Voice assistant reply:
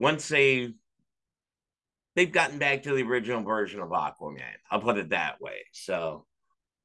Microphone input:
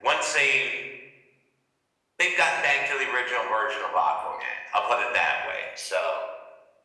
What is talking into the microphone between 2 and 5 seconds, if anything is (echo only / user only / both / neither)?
echo only